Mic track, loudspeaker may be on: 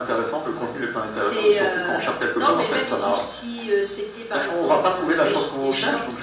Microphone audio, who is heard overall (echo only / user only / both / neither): echo only